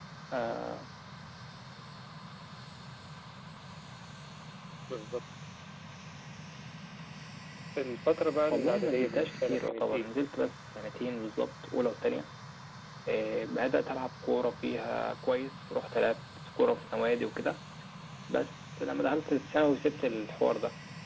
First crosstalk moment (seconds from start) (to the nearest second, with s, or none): 8 s